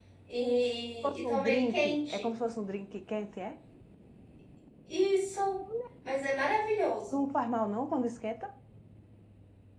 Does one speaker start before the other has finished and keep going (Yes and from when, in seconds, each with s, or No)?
Yes, from 1.0 s